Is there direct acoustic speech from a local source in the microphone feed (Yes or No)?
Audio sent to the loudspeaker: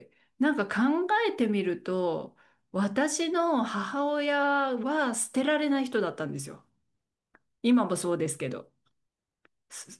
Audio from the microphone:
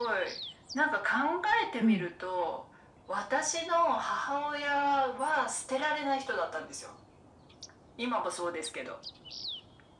Yes